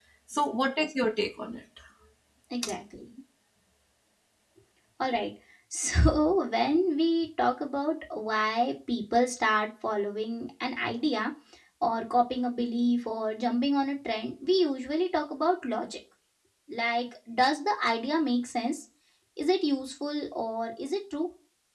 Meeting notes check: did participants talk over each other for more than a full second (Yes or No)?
No